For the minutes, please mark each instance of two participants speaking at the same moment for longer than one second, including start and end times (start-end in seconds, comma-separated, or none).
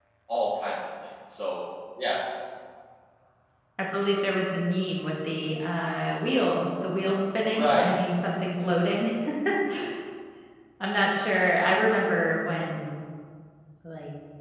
none